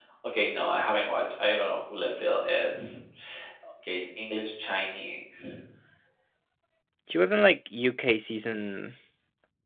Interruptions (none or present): none